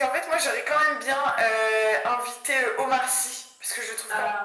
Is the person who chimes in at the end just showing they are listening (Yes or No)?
Yes